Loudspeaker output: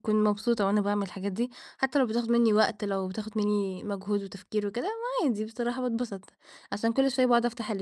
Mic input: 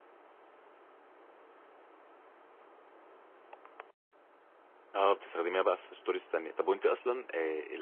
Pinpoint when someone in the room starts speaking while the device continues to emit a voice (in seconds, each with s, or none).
4.9 s